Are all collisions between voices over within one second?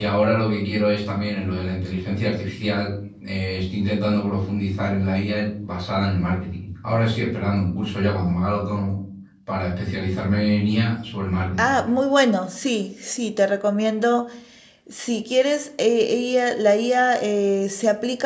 Yes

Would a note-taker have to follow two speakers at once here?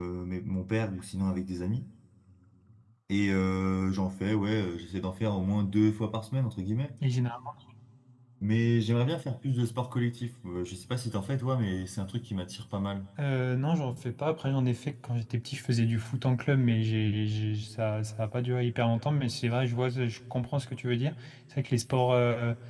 No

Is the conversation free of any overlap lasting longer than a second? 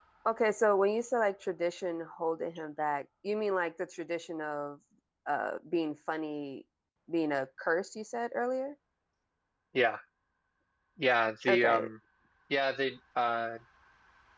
Yes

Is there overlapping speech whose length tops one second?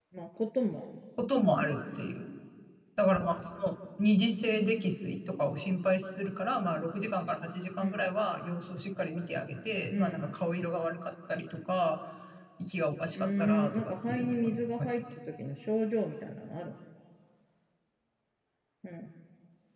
Yes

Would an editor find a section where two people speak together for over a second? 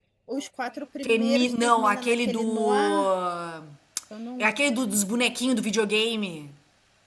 Yes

